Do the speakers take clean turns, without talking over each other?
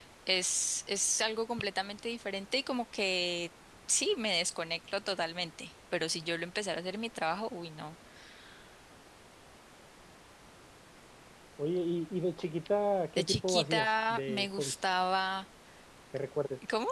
No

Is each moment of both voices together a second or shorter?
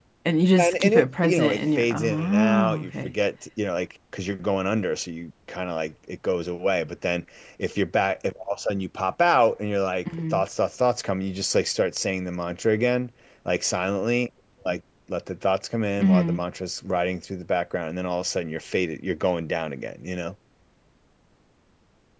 No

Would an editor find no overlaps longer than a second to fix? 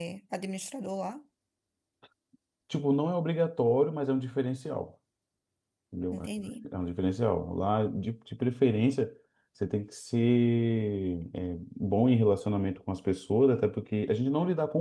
Yes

